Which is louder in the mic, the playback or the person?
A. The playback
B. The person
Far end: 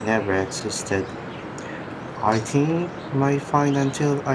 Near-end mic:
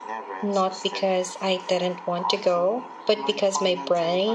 B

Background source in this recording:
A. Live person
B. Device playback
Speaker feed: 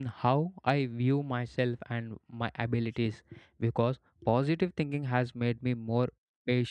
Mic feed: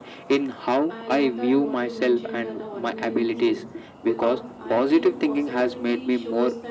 A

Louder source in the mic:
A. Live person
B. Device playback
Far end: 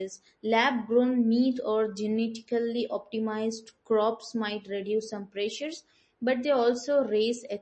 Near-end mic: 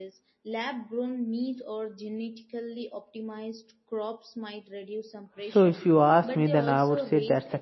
A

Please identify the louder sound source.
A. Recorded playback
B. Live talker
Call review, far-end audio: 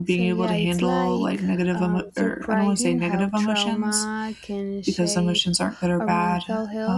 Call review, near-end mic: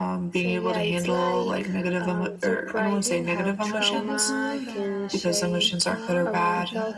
A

